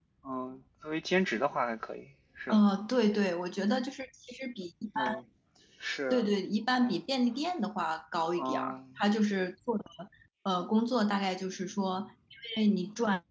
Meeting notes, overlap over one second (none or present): none